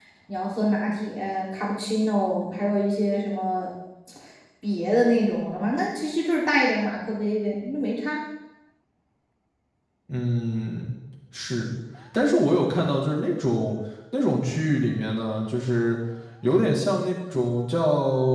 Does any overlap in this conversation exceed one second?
No

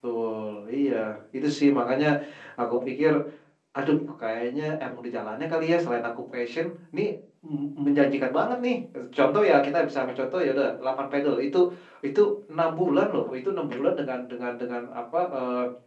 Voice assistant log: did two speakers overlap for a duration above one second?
No

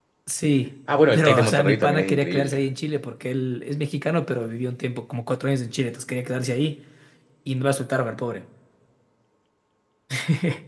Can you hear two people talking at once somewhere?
Yes, from 1.1 s

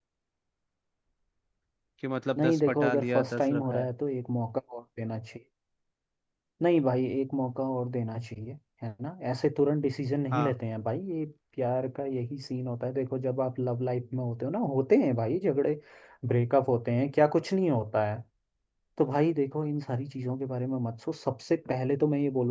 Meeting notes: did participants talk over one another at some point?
Yes, from 2.4 s

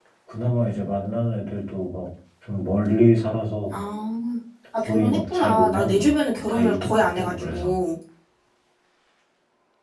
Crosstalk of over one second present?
Yes, from 4.8 s

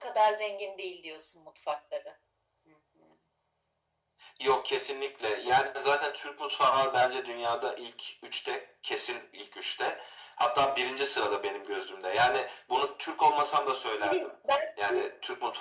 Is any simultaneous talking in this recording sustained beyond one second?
No

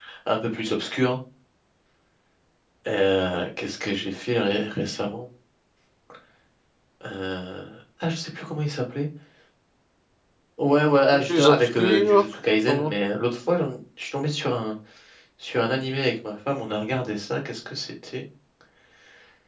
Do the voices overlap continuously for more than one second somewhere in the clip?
Yes, from 11.0 s

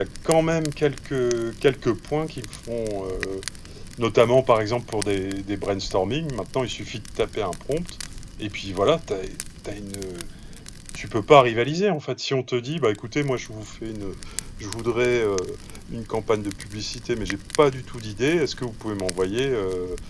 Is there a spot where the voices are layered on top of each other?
No

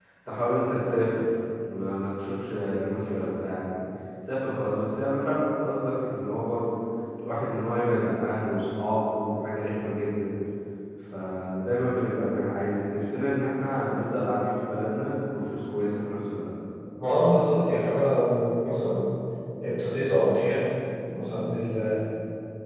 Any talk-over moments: No

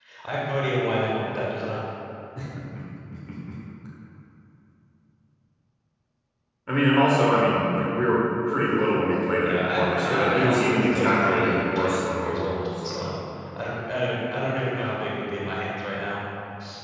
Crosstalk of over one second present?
Yes, from 9.4 s

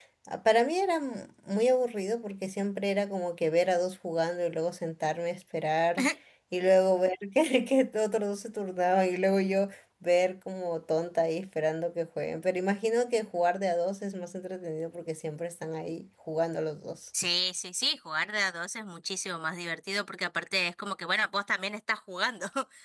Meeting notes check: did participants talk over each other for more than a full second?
No

